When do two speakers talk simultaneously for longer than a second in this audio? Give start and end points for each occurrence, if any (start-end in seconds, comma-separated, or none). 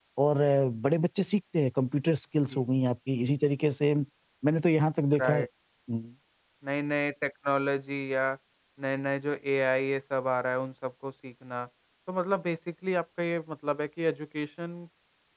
none